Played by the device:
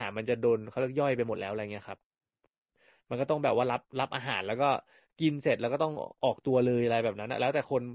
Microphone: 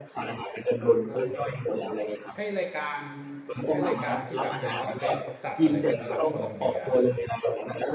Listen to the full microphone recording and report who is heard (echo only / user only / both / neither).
both